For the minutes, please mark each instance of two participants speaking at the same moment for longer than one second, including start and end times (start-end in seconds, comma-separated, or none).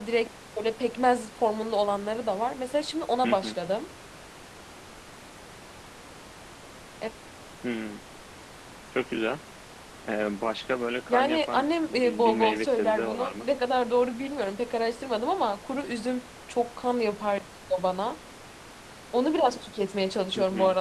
11.1-13.5